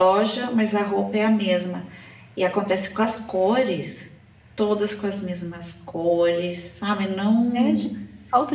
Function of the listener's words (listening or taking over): taking over